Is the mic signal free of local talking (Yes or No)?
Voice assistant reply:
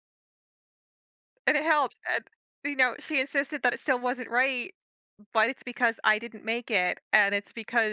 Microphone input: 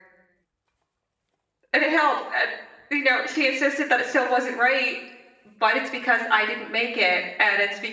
Yes